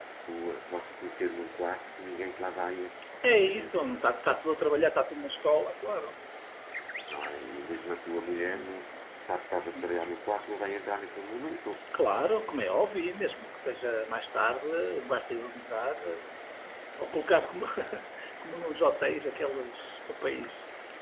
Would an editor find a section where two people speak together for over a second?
No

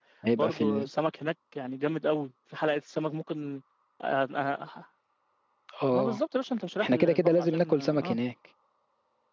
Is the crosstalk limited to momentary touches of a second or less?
No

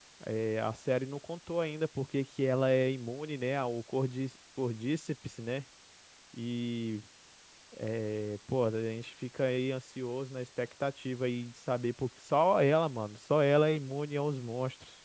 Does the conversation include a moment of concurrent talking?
No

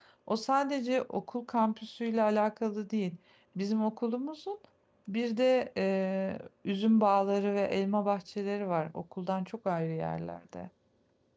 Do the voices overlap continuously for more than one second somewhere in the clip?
No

